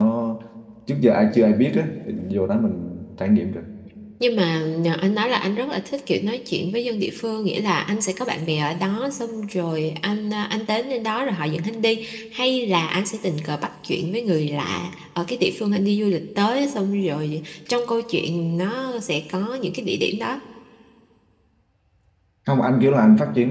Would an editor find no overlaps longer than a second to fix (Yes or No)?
Yes